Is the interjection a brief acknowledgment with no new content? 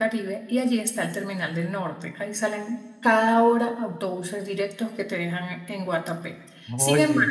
Yes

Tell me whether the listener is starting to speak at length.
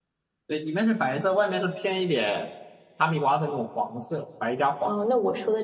Yes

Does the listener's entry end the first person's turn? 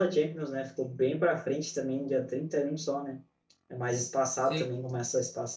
No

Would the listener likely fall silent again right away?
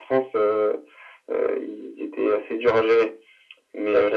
Yes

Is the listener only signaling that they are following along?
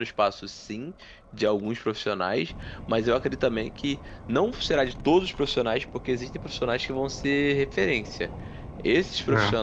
Yes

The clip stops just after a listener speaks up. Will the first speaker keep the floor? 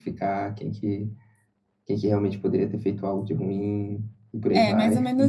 No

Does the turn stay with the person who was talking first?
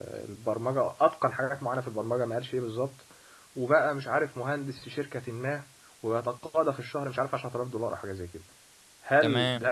Yes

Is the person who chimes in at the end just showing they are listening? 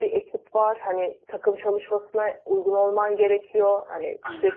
Yes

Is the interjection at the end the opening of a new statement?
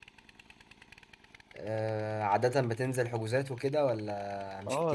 Yes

